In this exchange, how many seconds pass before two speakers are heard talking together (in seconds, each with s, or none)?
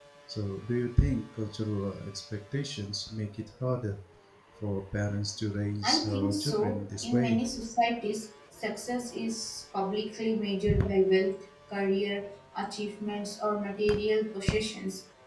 5.8 s